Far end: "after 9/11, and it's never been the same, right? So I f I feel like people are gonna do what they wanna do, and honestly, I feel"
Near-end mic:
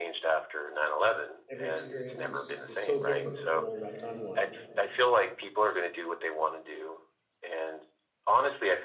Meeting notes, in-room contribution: present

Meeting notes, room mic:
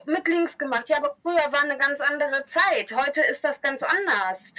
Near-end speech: none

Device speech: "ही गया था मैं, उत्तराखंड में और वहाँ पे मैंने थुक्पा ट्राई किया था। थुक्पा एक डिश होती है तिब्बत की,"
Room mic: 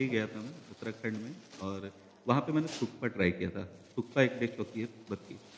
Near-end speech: none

